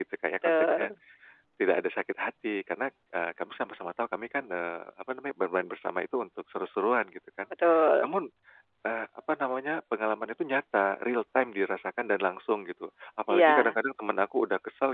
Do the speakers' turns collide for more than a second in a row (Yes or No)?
No